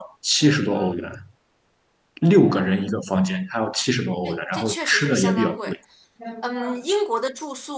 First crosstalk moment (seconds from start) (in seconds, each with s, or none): 4.2 s